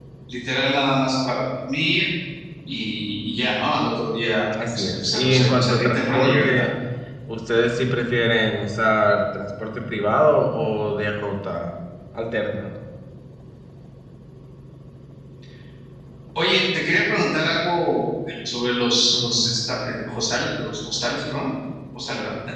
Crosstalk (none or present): present